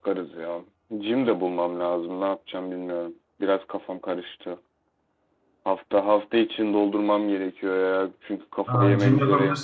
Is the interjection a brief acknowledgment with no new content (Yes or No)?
No